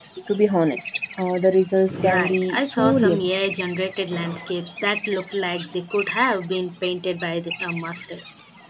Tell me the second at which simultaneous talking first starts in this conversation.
2 s

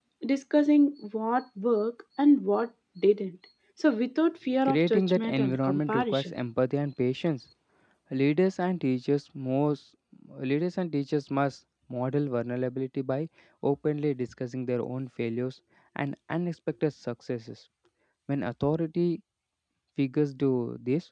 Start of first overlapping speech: 5 s

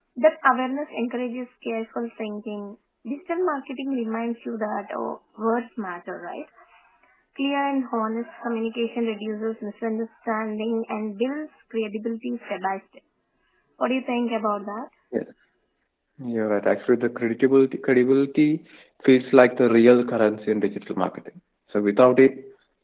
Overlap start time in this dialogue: none

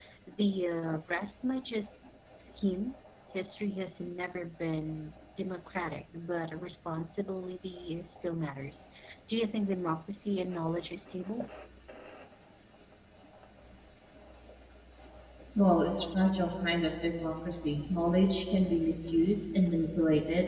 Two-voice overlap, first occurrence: none

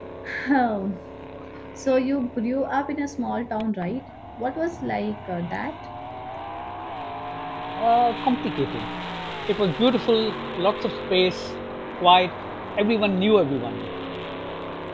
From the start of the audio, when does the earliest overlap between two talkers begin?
none

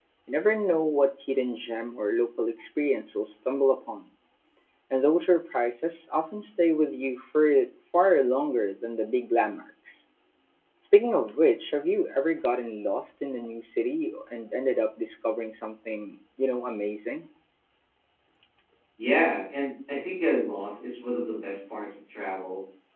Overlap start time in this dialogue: none

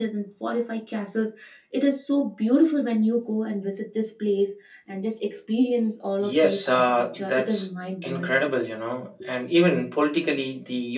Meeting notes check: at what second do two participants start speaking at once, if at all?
6 s

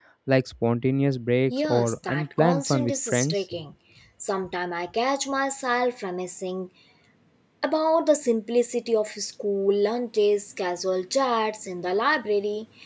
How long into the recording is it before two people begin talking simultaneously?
2 s

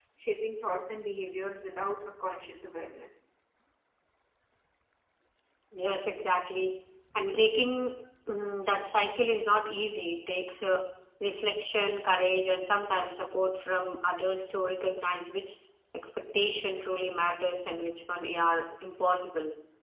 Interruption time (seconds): none

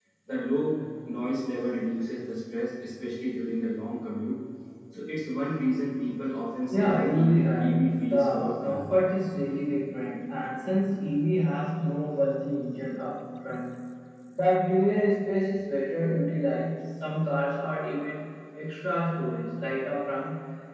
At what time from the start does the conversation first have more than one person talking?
7 s

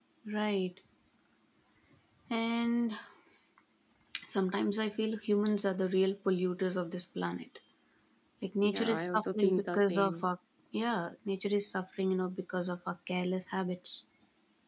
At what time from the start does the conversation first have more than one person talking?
9 s

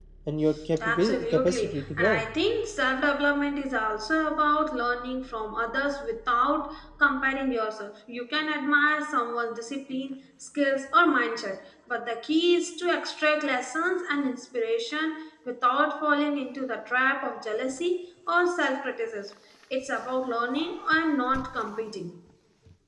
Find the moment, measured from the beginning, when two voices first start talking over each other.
1 s

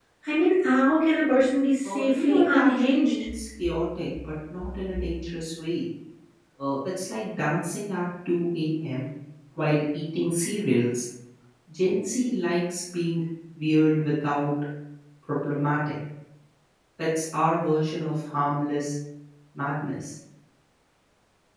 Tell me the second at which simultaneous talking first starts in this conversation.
2 s

